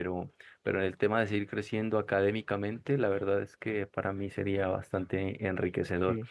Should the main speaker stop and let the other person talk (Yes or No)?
No